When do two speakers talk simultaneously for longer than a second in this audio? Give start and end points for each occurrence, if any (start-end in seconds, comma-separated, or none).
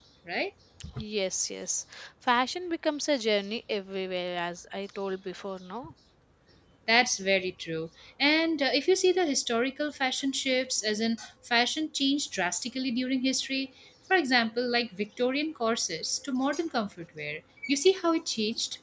none